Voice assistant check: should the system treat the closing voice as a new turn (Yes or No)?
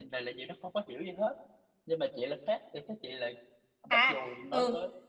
Yes